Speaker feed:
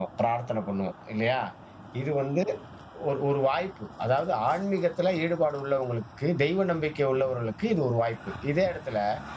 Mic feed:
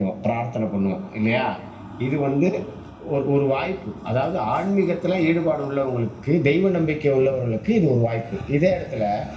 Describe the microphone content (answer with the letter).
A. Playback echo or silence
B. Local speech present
A